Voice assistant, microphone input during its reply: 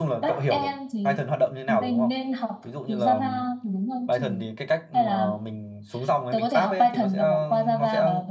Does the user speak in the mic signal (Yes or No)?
Yes